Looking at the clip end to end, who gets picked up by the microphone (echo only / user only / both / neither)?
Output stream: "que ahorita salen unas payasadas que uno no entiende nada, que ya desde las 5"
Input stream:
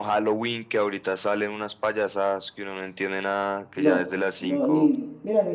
both